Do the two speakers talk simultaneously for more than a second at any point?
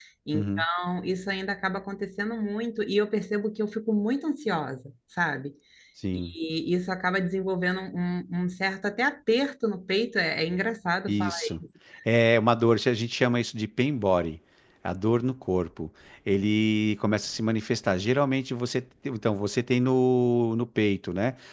No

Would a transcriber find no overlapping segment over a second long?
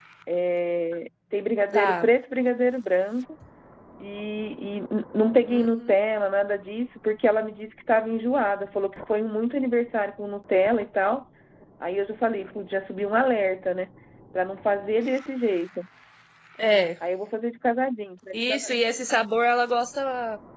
Yes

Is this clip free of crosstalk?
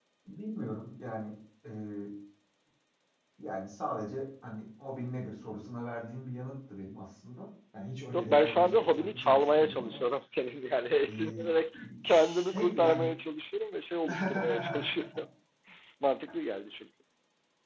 No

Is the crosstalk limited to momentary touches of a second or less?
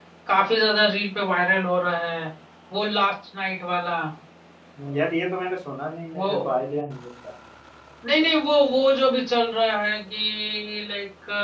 Yes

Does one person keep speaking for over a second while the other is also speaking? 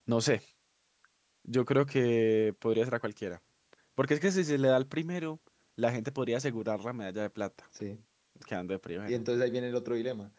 No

